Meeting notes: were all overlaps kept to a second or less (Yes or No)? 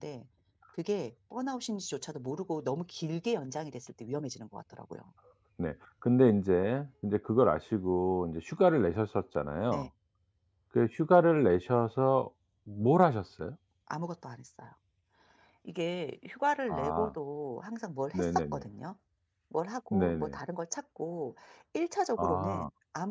Yes